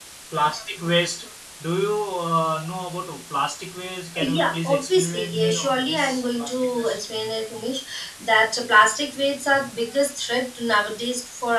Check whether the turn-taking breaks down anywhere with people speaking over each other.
Yes, from 4.2 s

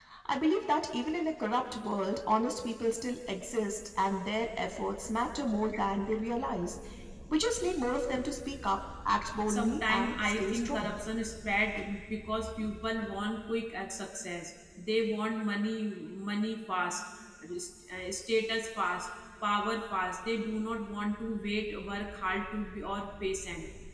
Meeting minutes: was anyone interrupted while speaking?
Yes, from 9.5 s

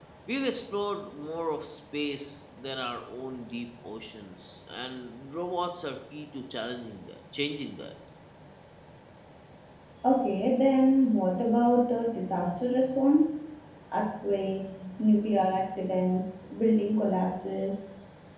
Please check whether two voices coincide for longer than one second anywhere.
No

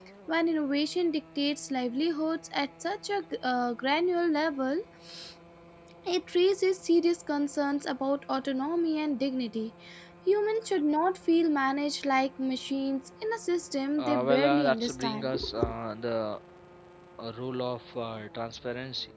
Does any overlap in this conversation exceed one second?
Yes, from 14.0 s

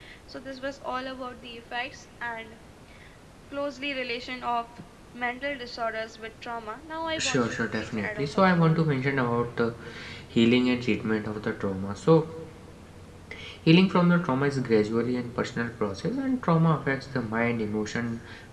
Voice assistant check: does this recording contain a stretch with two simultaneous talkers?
Yes, from 7.1 s

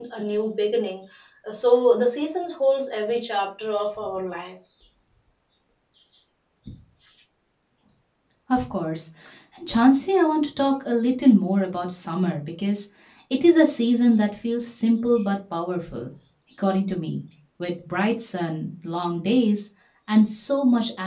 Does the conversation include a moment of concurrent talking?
No

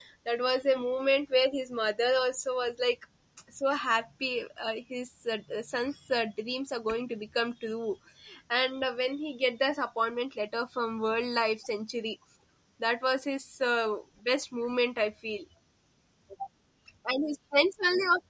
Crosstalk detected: No

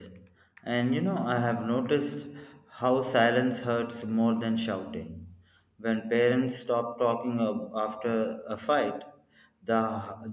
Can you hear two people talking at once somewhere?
No

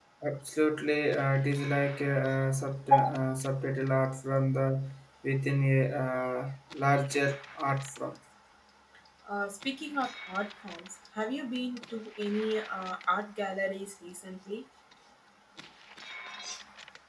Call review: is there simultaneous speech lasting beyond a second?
No

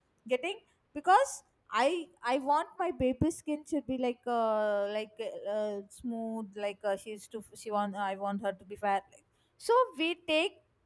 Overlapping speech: No

